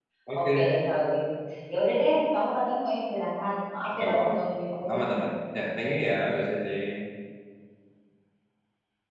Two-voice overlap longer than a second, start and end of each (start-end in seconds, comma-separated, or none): 3.9-5.2